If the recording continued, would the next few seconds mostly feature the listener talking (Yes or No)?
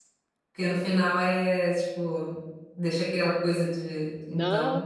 Yes